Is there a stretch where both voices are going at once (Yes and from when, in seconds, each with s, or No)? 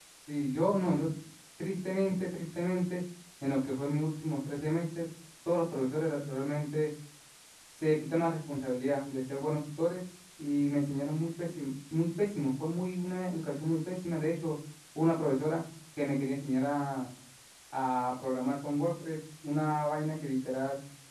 No